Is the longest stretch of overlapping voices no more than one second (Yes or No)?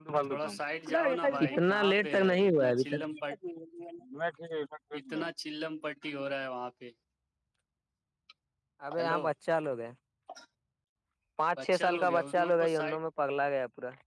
No